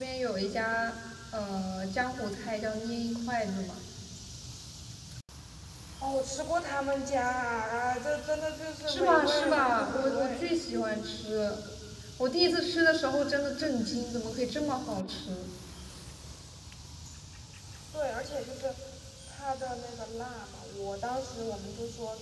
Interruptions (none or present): present